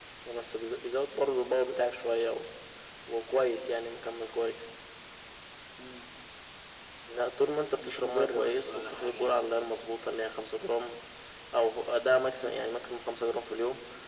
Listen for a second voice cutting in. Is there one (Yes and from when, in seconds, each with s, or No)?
Yes, from 7.8 s